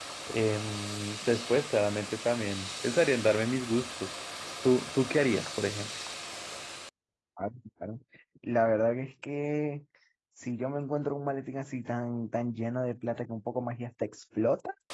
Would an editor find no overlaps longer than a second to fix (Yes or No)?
Yes